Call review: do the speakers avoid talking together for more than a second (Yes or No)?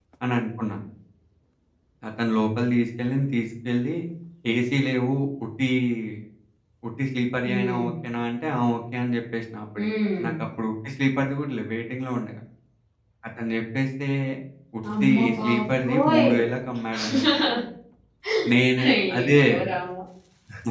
No